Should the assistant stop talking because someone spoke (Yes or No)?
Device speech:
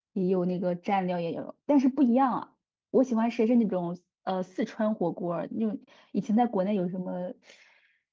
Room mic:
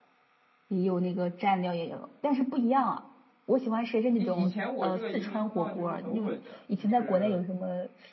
Yes